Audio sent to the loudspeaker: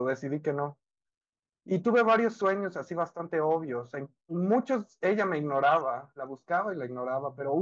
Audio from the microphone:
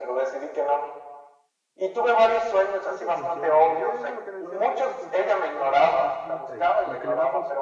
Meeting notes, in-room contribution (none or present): present